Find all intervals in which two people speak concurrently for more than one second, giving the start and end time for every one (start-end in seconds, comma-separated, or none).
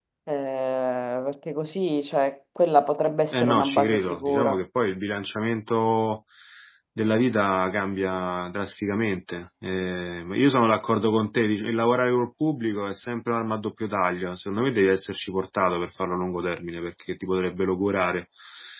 3.3-4.6